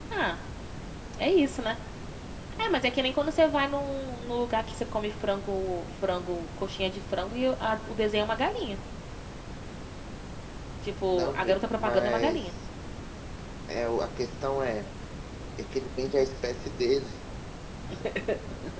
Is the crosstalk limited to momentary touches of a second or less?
No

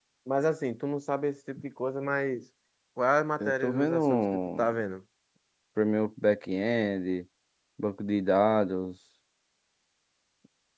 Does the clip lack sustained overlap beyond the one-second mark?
No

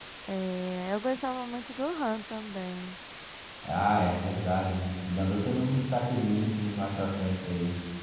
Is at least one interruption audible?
No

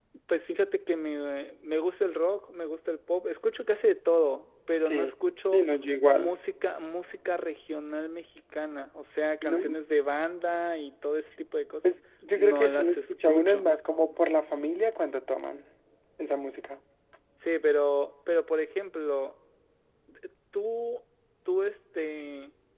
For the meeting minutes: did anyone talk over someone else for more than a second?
Yes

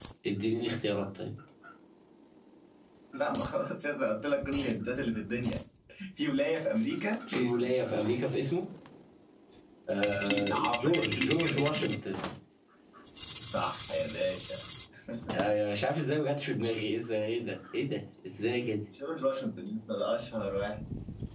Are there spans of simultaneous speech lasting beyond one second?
Yes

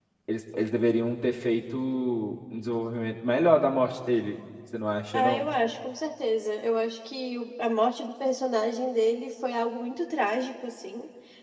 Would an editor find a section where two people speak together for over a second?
No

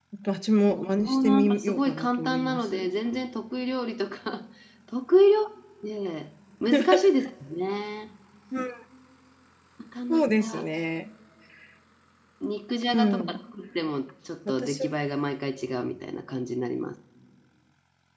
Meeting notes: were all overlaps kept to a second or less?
No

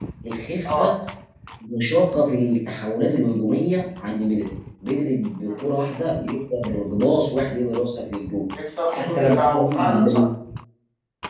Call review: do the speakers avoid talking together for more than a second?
No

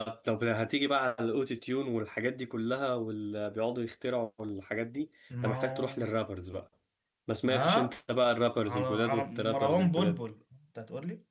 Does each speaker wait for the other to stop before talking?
No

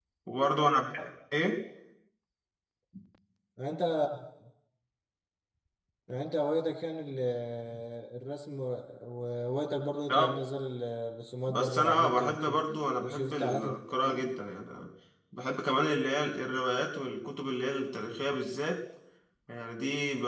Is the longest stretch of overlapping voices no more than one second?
No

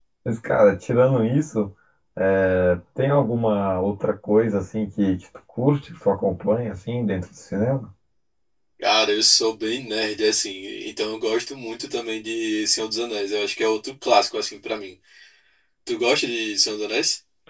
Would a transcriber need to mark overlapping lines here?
No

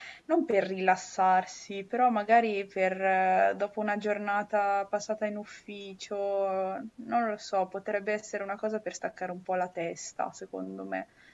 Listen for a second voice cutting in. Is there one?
No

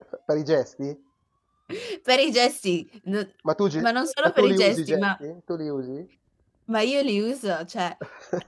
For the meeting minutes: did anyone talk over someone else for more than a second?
Yes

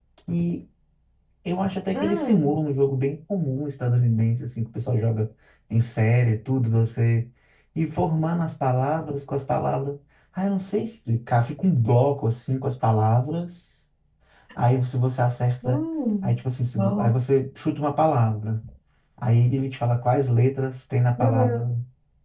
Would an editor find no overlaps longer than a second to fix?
Yes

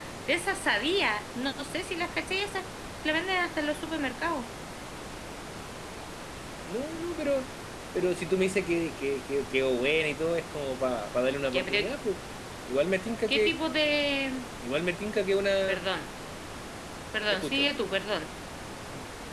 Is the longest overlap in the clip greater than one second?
No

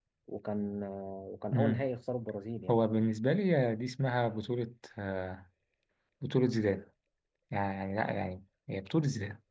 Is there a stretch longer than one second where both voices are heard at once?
No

